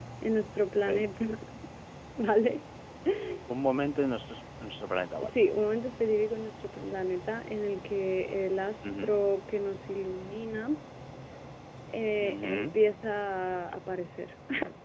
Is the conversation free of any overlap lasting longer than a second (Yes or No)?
Yes